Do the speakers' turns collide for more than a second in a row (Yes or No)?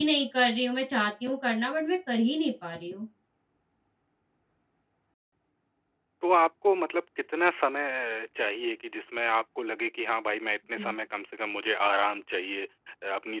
No